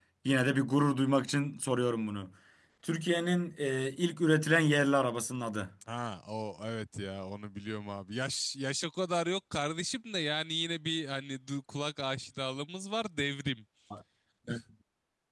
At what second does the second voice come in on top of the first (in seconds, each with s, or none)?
none